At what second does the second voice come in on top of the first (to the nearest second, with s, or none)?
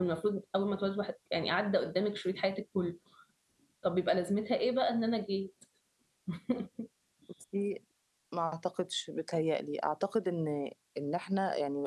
none